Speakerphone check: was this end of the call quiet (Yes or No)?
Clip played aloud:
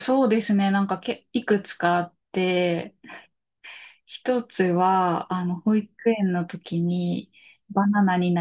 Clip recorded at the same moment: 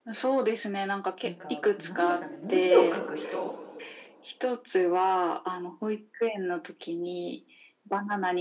No